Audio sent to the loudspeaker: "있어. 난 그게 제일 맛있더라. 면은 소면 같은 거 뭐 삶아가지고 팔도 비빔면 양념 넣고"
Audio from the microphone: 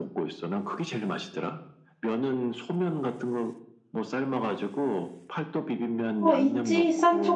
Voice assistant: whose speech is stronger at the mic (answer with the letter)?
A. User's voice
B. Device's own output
A